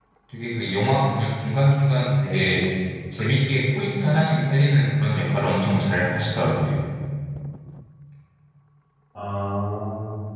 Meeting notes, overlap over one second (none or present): none